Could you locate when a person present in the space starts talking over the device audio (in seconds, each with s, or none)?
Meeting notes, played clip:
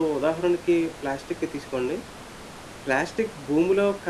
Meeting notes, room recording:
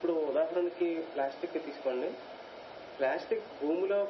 none